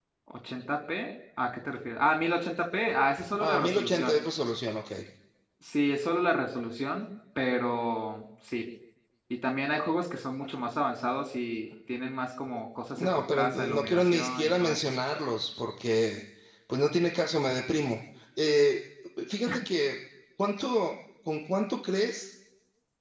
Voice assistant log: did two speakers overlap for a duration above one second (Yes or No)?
Yes